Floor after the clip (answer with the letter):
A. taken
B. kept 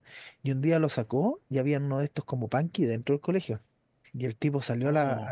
B